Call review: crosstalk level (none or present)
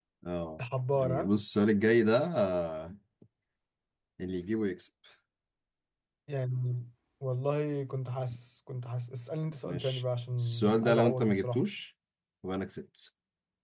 present